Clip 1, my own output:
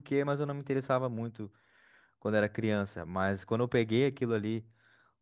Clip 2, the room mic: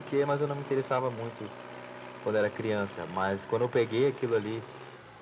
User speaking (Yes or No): No